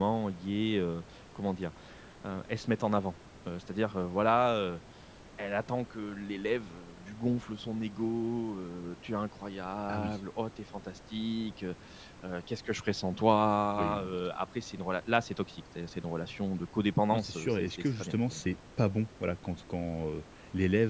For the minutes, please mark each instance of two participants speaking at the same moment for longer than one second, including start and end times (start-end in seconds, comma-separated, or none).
17.1-18.4